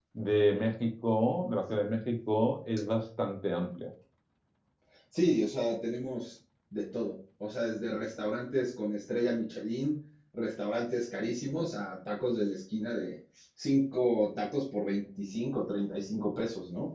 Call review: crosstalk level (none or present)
none